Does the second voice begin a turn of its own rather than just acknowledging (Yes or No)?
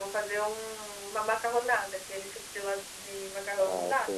Yes